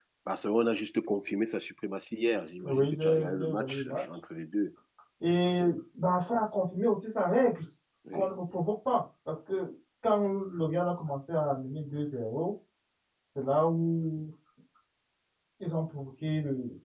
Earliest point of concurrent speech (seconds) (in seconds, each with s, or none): 2.6 s